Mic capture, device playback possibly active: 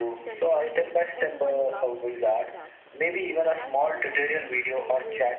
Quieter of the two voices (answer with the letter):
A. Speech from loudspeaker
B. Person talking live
B